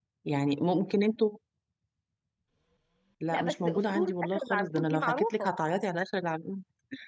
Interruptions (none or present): present